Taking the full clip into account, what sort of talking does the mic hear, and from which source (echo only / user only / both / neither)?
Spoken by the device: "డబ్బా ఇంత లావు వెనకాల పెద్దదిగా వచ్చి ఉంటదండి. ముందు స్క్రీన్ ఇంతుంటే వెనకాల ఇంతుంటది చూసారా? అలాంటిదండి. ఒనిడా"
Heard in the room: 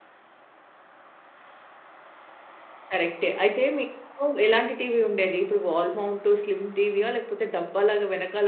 user only